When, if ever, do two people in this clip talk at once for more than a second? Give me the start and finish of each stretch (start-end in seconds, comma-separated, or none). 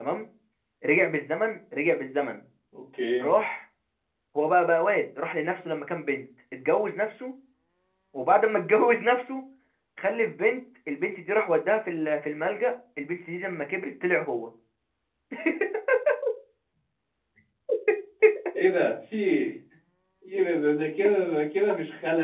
none